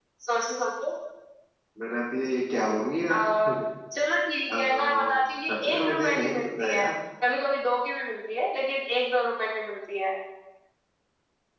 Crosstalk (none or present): present